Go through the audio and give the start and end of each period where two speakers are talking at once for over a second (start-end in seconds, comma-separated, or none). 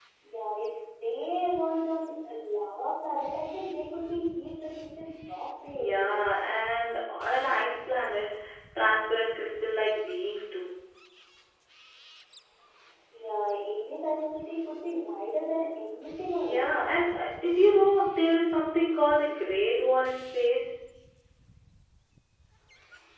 none